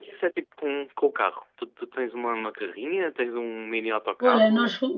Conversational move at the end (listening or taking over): taking over